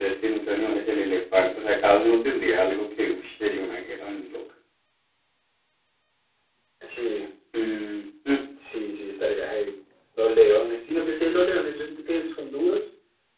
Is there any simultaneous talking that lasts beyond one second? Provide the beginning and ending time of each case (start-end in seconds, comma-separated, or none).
none